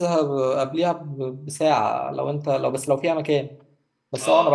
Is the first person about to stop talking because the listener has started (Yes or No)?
No